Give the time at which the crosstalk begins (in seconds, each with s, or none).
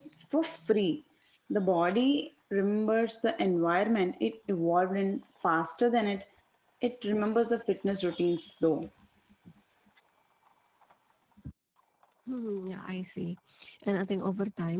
none